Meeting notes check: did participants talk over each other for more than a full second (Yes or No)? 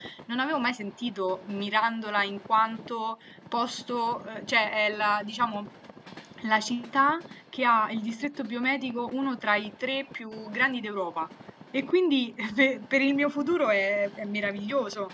No